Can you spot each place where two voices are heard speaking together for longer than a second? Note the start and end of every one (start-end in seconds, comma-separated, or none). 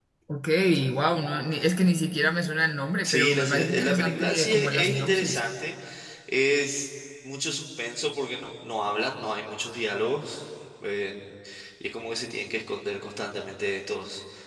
3.0-5.4